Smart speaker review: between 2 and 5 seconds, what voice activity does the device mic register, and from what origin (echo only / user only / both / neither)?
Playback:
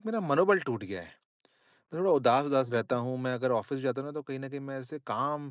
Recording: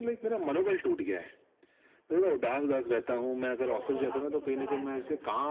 both